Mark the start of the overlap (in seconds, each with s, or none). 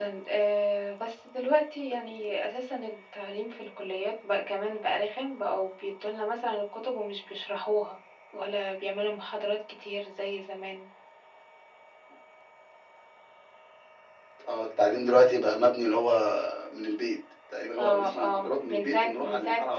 17.8 s